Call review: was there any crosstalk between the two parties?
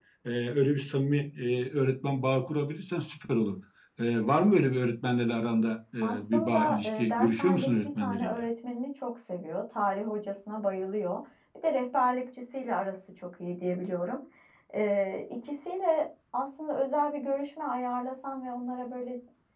Yes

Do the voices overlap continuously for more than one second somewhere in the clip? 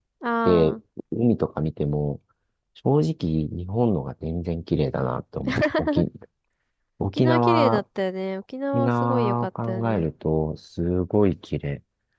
Yes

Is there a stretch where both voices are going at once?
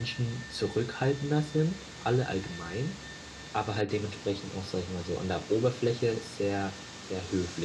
No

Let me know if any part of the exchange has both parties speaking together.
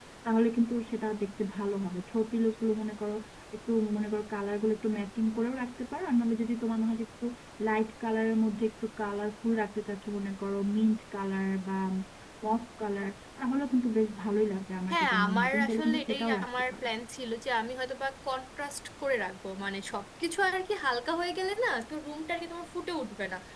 Yes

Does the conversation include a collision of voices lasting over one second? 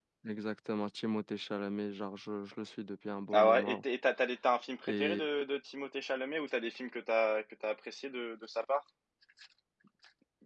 No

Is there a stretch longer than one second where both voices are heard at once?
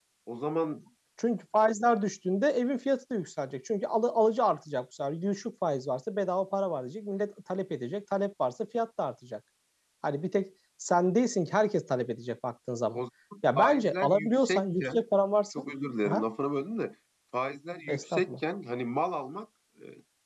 Yes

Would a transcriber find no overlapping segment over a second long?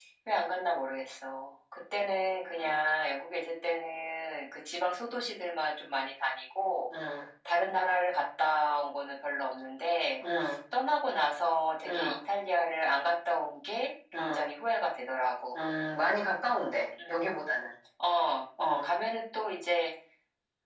Yes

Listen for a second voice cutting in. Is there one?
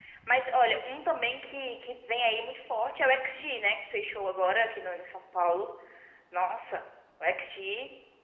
No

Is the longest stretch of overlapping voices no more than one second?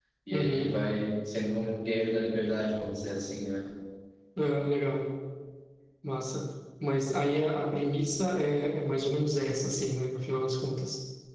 Yes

